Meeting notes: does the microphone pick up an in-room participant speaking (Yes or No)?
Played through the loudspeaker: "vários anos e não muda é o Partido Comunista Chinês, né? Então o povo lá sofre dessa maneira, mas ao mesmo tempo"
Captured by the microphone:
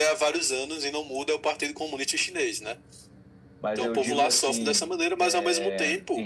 Yes